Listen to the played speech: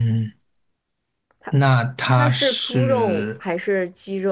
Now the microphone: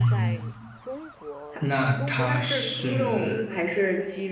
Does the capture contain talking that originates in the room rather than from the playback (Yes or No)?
Yes